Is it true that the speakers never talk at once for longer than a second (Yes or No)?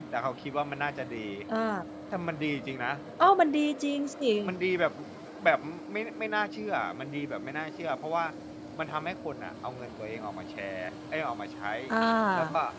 Yes